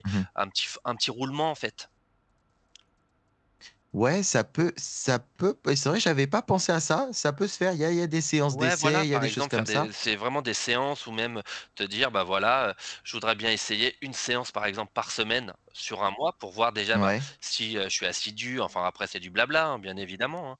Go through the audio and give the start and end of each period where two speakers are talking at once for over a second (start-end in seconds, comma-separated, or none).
8.5-9.9